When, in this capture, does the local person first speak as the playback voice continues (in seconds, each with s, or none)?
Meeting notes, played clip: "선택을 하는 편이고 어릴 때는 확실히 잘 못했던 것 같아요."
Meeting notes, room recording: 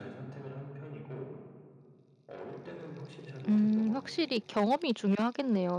3.5 s